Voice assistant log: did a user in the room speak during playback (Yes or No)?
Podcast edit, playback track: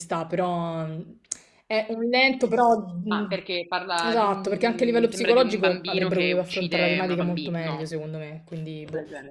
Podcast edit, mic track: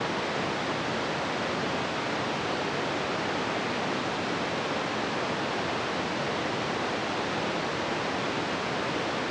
No